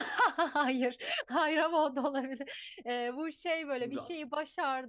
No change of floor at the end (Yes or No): Yes